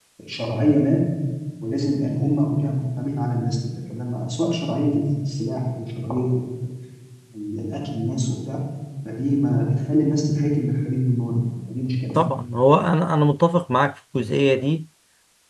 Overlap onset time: none

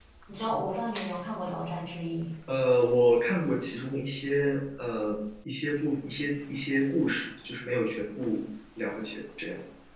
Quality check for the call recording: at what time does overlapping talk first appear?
none

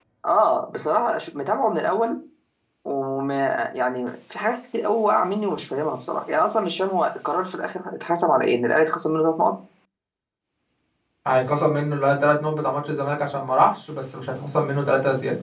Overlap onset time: none

